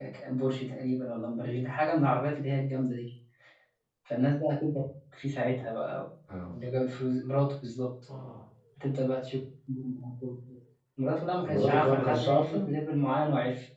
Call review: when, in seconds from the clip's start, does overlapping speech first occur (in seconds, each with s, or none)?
11.4 s